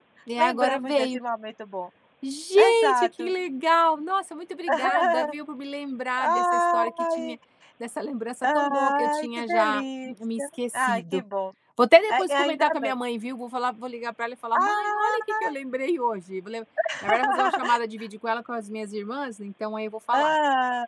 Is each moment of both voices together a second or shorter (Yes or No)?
No